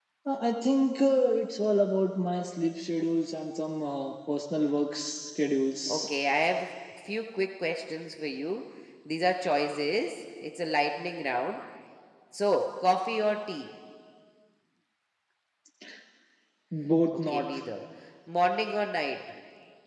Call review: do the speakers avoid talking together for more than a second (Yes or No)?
Yes